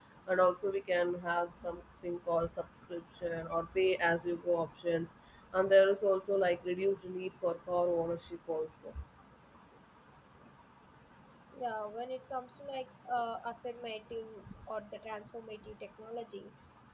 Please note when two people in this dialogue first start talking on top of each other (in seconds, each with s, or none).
none